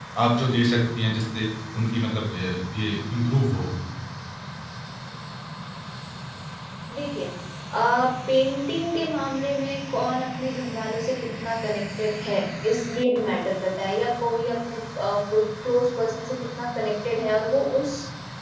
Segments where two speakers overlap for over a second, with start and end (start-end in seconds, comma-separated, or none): none